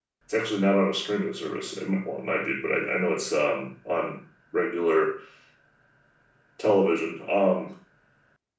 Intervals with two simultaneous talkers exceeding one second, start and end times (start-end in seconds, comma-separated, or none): none